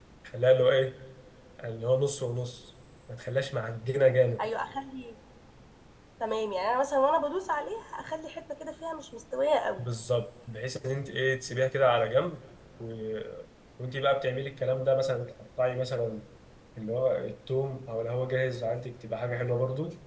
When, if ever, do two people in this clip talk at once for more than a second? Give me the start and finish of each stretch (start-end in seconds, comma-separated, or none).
none